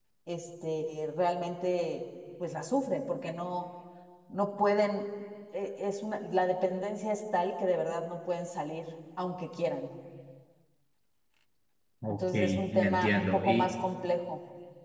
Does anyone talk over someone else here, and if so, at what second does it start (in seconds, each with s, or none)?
12.1 s